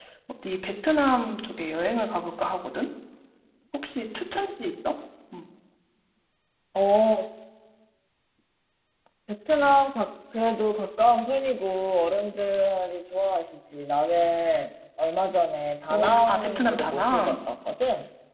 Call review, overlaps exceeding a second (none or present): present